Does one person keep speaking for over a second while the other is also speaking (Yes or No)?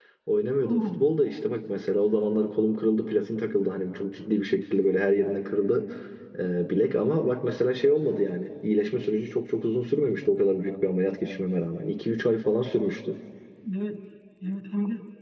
No